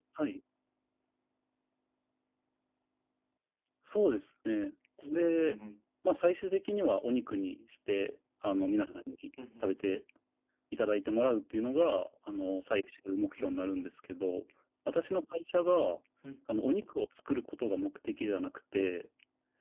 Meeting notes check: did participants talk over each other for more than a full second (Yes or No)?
No